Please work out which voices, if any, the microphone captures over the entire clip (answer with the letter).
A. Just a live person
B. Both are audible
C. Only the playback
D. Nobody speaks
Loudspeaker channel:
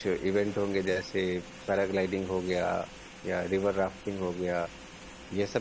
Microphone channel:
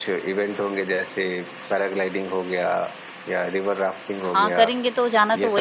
B